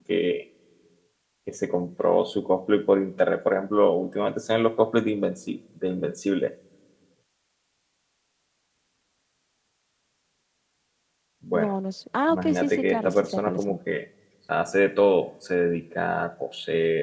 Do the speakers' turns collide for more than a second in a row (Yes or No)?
Yes